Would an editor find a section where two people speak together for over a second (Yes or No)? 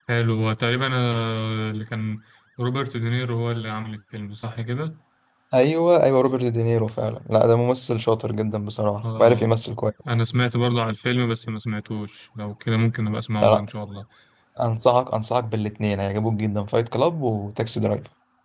No